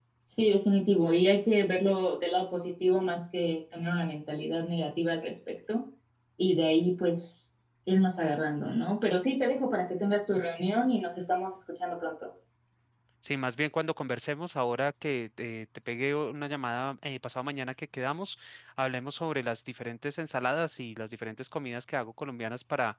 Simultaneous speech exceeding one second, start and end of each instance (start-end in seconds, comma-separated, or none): none